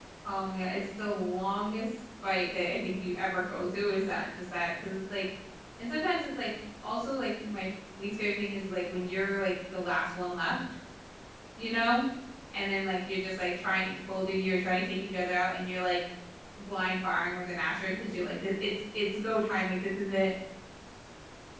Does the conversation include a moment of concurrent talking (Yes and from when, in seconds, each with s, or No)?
No